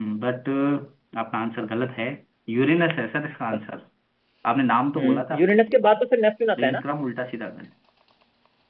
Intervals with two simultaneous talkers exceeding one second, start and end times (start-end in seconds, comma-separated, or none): none